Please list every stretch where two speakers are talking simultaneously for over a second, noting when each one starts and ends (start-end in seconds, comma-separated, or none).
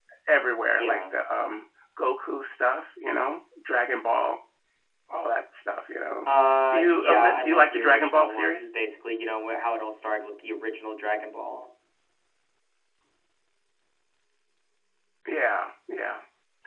6.7-8.7